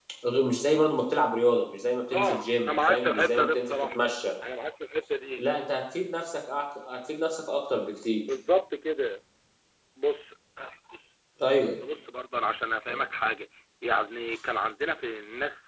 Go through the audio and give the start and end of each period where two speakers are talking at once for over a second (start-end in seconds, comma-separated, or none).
2.1-4.0